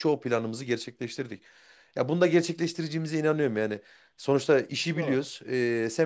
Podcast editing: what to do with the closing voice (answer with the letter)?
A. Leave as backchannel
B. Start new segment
A